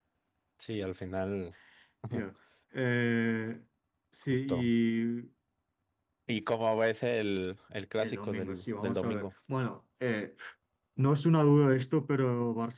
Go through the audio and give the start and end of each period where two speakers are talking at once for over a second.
8.0-9.2

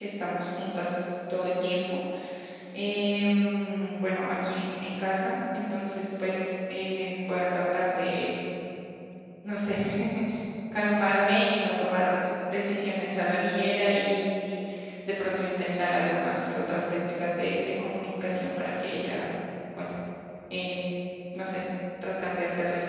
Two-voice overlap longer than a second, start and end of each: none

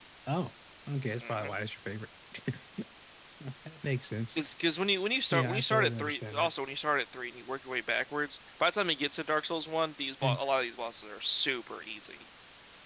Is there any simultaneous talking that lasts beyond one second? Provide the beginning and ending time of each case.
5.3-6.5

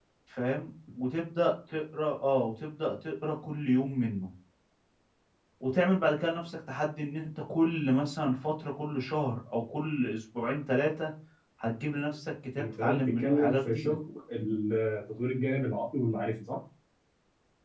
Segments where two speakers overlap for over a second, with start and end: 12.6-14.0

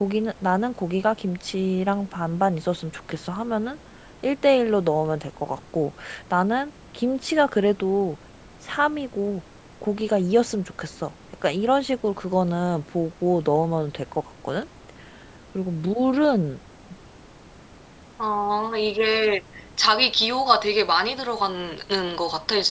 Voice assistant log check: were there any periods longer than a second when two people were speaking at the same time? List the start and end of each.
none

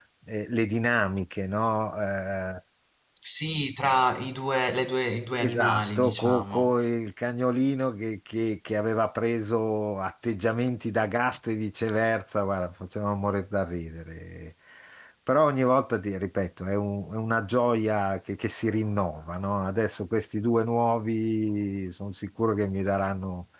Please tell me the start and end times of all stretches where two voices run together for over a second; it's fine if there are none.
5.4-6.7

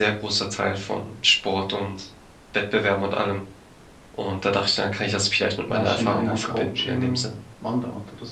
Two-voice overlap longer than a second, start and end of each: 5.7-7.3

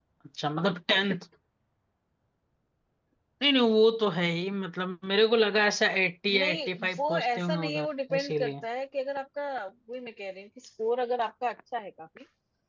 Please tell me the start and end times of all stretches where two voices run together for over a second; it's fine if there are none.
6.3-8.6

